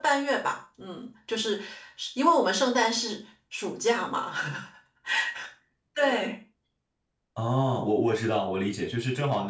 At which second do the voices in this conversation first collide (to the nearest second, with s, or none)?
none